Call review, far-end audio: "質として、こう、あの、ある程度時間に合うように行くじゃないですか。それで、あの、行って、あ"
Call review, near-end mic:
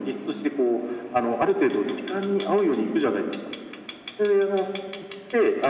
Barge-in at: none

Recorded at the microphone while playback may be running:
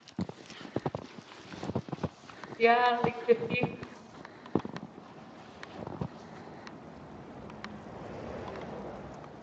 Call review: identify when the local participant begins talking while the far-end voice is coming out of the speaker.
3 s

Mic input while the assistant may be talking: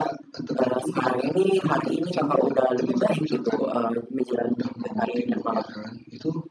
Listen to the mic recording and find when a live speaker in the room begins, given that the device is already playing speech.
none

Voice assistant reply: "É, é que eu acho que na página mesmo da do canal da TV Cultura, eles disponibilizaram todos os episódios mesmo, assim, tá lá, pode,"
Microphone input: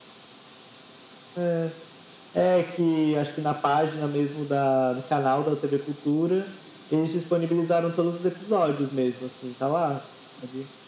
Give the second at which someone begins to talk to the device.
none

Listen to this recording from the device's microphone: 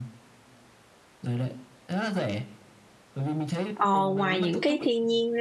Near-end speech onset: 4 s

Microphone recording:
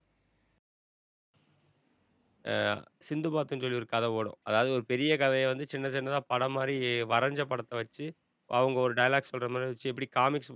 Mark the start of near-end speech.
3 s

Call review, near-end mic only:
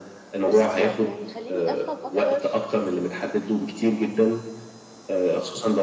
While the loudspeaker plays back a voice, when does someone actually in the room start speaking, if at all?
0 s

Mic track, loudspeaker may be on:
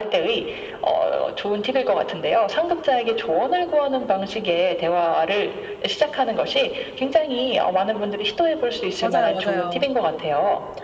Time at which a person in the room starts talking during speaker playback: 9 s

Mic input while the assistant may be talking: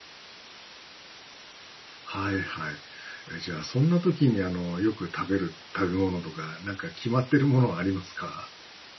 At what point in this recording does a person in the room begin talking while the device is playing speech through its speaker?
2 s

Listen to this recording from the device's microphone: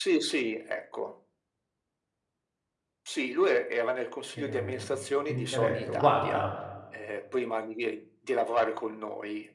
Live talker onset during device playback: 4 s

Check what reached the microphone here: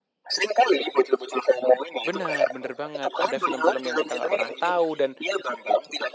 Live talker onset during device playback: 2 s

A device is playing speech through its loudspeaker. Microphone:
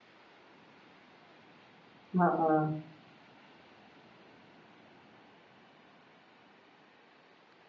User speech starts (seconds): 2 s

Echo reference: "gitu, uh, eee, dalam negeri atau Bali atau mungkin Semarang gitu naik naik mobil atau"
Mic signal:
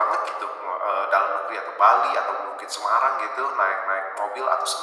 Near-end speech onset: none

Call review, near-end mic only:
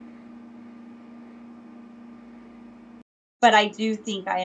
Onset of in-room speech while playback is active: 3 s

